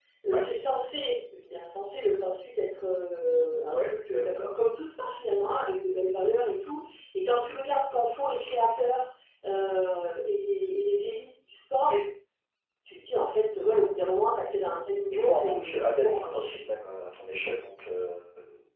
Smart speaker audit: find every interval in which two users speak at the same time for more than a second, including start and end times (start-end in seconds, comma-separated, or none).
15.1-16.6